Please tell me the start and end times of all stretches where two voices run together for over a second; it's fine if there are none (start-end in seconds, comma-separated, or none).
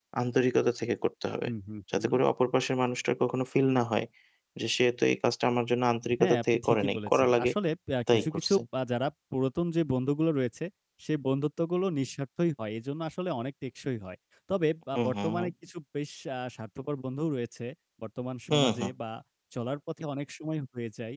6.2-7.5